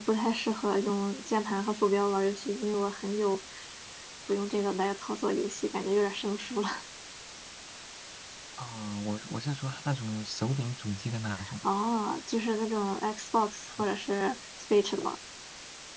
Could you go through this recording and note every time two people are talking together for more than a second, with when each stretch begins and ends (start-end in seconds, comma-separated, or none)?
none